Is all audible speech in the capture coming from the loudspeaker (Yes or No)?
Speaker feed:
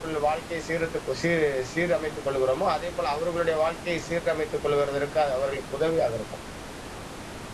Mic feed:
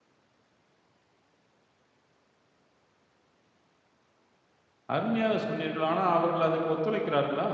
No